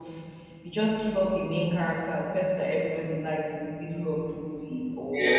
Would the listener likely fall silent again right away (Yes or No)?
No